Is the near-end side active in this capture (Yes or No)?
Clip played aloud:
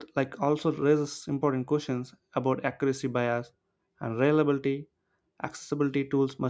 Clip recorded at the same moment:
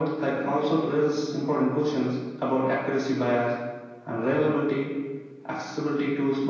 No